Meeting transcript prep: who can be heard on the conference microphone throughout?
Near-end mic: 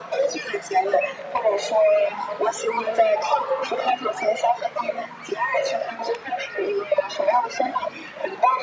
echo only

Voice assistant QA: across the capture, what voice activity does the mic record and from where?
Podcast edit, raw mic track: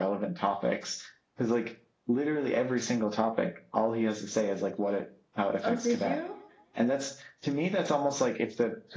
both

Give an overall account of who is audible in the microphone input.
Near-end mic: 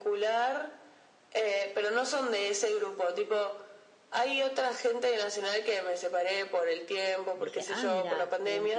both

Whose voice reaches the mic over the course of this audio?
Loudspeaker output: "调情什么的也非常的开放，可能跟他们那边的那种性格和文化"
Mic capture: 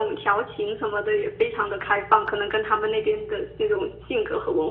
echo only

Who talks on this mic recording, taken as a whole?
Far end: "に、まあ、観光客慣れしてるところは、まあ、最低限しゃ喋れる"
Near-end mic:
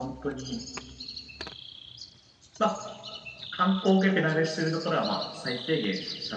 echo only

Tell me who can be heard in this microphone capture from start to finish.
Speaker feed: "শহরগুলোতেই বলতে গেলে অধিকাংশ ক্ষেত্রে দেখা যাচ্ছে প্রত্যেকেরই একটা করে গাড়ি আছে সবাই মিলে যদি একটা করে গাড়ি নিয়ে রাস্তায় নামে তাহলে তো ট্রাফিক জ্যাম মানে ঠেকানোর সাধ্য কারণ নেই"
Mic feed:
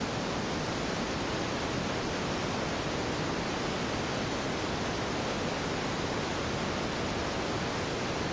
neither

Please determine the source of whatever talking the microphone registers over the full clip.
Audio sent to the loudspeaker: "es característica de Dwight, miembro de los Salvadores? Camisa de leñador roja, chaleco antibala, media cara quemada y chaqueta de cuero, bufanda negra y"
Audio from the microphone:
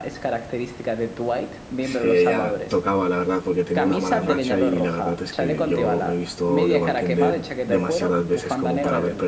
both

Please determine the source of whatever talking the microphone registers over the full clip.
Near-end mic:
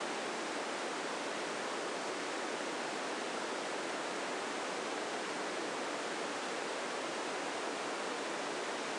neither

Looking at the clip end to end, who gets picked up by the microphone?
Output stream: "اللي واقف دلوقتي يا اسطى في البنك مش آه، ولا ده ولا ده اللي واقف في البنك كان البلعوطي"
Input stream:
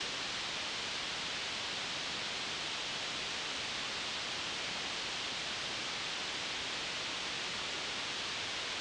neither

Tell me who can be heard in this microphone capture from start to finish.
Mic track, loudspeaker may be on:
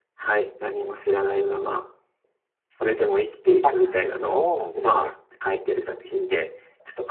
both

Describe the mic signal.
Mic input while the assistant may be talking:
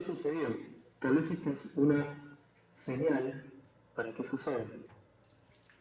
echo only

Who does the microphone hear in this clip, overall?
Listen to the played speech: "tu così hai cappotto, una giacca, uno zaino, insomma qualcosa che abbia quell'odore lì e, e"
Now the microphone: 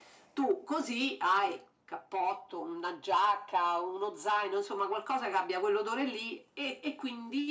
echo only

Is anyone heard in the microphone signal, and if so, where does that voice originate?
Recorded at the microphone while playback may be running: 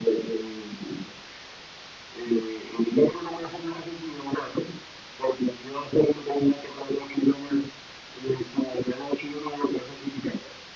echo only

